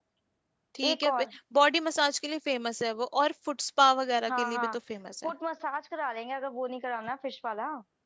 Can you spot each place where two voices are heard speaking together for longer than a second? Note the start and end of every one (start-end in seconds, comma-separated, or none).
none